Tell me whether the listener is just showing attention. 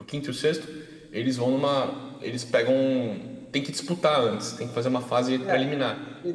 No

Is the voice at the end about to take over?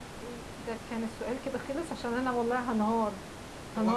No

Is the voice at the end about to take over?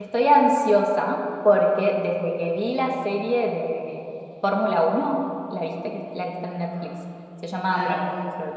No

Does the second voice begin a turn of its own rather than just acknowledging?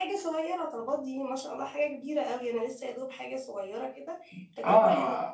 Yes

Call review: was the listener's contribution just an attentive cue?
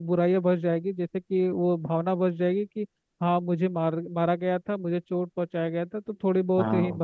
Yes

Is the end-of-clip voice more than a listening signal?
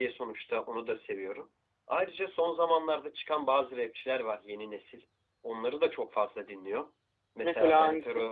No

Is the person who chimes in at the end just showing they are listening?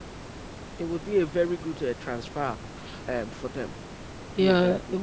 No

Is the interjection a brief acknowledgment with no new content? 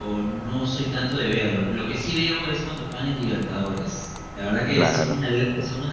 Yes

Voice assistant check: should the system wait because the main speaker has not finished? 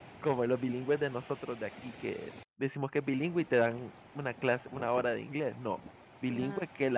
Yes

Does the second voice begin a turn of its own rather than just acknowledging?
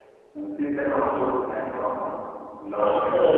Yes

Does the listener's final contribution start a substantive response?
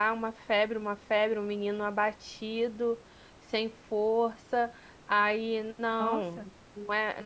No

